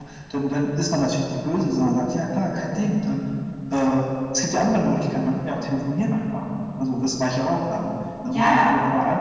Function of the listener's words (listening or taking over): listening